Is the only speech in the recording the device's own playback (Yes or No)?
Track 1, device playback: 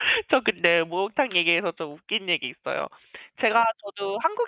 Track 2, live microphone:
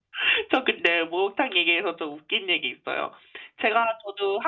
Yes